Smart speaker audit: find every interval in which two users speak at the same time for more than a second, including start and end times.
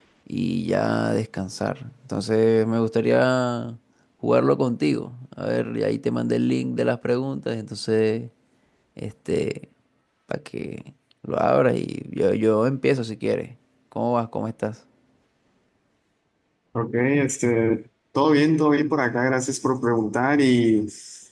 none

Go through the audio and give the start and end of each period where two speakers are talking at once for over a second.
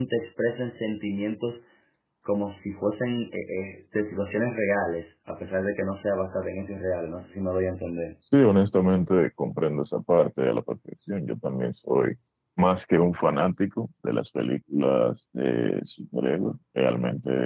none

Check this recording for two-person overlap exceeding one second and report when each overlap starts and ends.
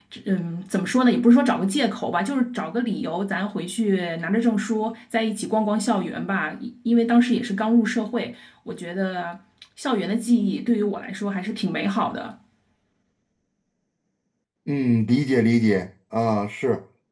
none

